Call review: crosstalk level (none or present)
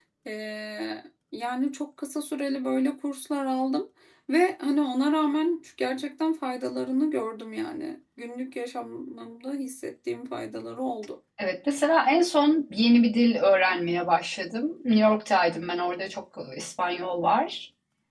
none